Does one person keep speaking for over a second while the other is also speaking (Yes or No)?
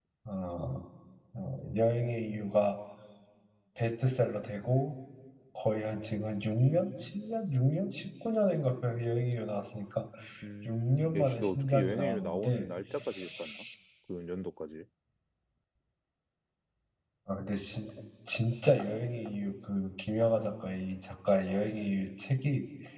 Yes